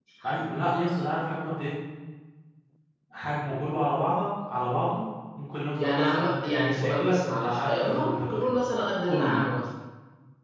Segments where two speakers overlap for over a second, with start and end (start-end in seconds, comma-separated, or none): 5.8-8.6